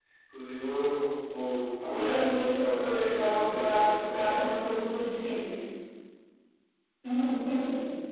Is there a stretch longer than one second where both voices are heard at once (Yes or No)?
Yes